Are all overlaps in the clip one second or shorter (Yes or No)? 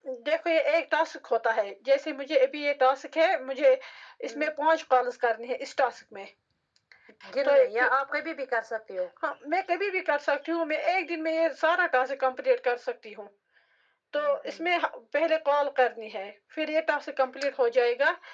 Yes